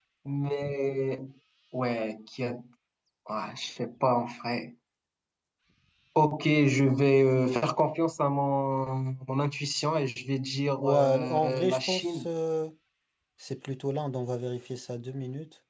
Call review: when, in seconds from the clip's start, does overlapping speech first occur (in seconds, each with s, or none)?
10.8 s